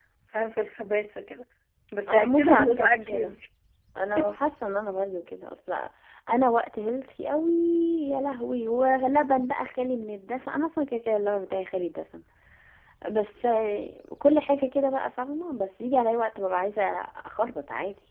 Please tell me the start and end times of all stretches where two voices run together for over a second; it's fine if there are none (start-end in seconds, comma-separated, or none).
2.1-3.3